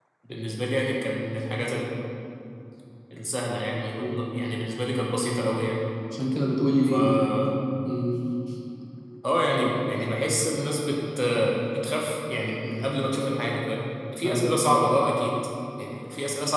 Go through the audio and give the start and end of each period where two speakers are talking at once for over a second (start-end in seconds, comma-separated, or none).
none